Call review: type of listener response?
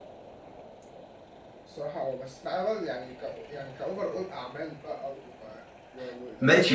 taking over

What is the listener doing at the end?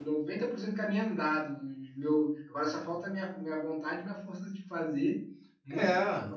listening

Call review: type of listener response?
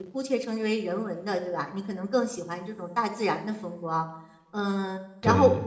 listening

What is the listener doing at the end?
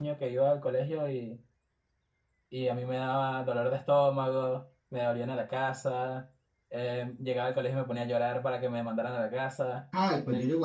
taking over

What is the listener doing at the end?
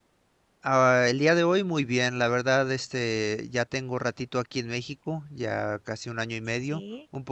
listening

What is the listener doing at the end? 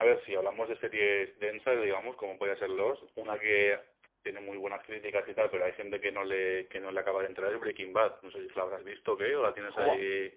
taking over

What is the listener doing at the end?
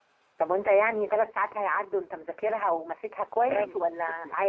taking over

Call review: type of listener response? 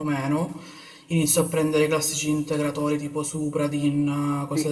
taking over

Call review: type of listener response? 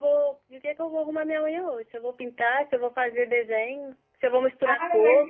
taking over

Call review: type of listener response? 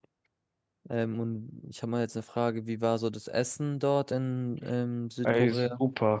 taking over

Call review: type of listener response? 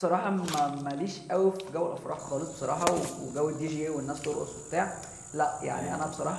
listening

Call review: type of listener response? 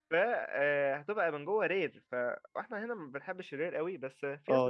taking over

